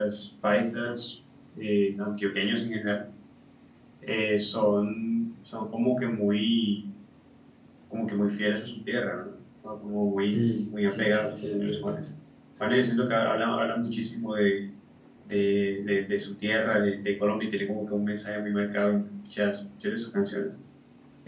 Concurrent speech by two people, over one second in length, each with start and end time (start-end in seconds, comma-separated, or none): 10.3-12.0